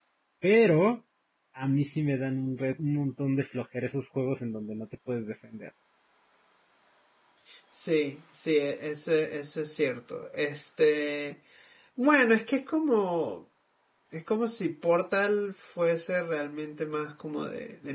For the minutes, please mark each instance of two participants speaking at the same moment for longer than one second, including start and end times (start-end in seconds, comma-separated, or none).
none